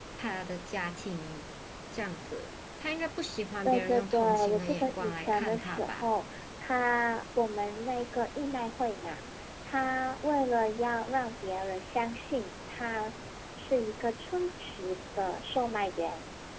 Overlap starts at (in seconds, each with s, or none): 3.6 s